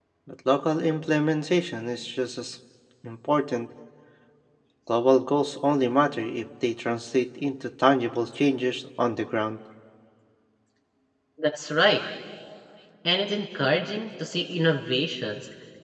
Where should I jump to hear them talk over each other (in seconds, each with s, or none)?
none